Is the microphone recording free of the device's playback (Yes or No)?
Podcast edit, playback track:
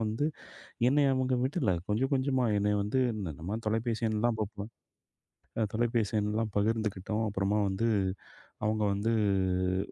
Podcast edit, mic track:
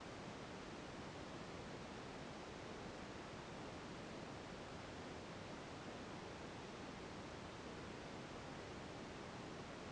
Yes